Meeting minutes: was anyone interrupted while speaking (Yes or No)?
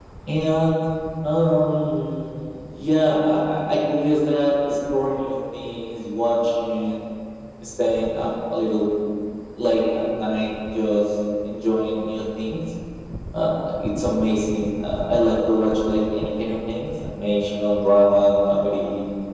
No